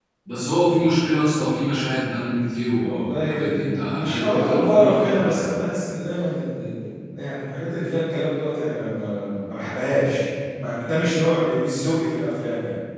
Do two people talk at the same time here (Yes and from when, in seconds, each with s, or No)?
Yes, from 2.8 s